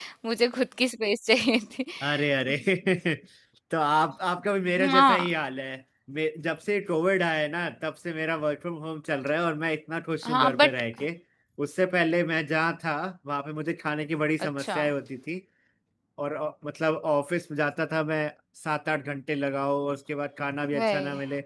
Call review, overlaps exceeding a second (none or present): none